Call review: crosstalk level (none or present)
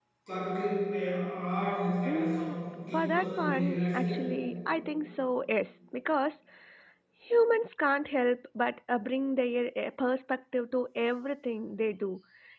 present